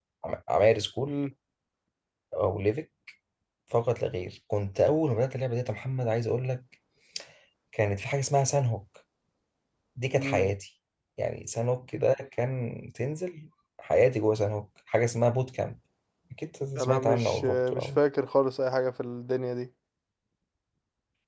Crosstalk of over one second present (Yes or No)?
Yes